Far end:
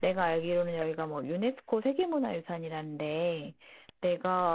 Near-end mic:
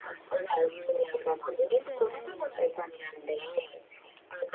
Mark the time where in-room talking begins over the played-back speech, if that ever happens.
2 s

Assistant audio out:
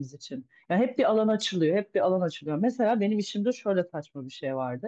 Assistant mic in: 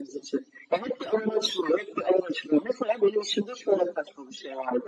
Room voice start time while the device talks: none

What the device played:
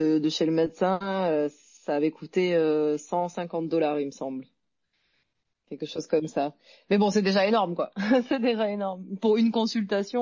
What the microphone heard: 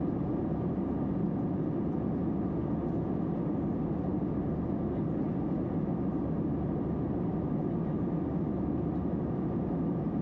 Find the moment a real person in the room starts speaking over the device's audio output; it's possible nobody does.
none

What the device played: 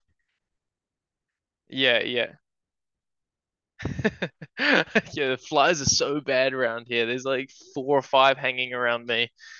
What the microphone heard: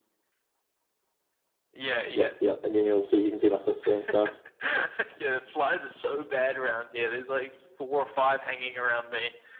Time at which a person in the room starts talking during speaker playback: 2 s

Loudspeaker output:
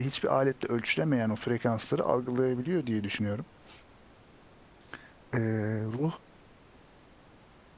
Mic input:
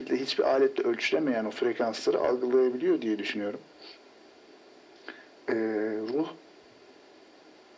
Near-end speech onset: none

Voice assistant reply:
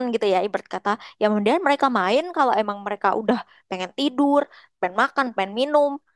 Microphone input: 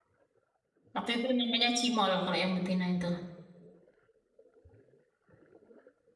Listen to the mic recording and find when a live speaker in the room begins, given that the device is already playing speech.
1 s

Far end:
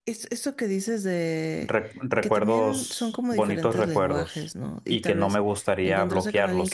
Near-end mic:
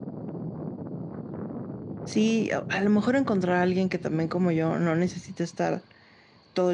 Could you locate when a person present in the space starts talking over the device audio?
2 s

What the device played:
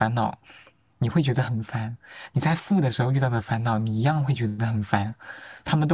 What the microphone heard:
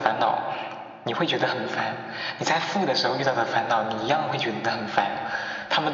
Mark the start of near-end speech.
none

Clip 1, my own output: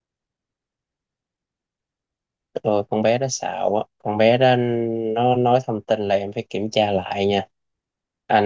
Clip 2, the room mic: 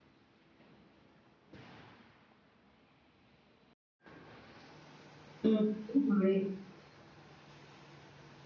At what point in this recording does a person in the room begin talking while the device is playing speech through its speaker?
5 s

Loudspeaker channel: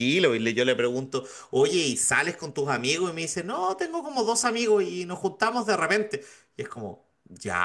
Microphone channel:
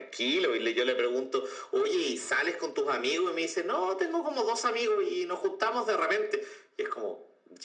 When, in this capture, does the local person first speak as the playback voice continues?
none

